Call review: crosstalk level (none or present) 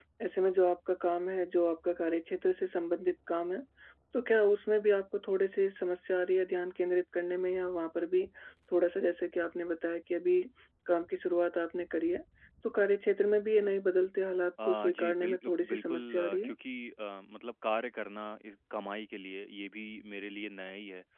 present